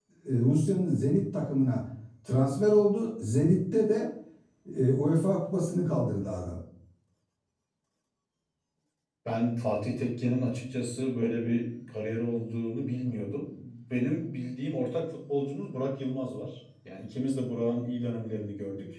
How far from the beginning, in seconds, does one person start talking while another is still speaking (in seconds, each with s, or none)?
none